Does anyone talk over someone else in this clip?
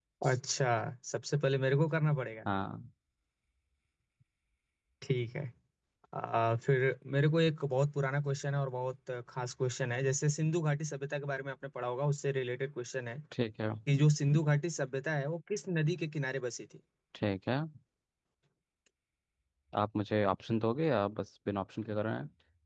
No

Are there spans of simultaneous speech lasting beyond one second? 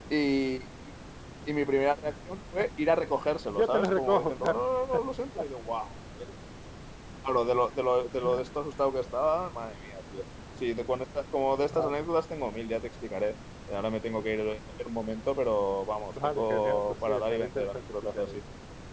Yes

